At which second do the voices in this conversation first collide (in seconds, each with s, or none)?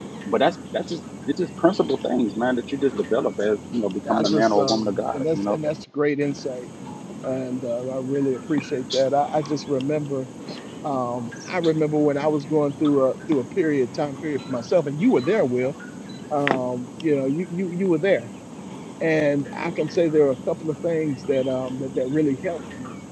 4.0 s